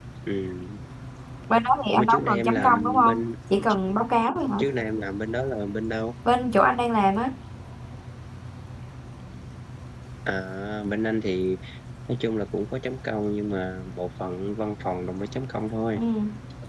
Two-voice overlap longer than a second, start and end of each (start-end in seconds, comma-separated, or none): 1.9-3.2